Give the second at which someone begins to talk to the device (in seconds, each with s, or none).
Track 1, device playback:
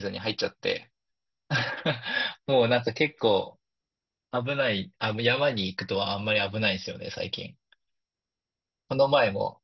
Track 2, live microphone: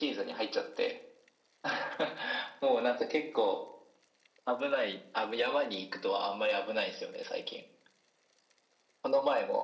none